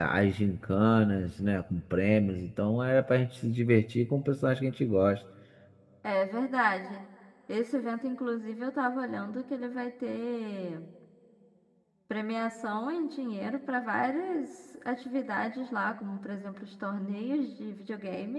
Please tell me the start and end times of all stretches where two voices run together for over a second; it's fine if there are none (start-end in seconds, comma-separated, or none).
none